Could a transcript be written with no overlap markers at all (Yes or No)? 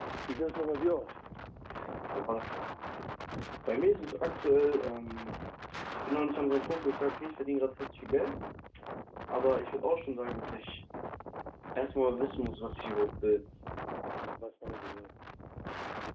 Yes